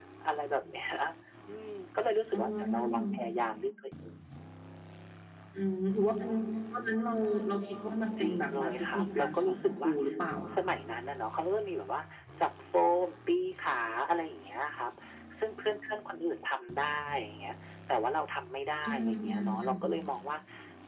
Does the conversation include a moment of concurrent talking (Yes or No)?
Yes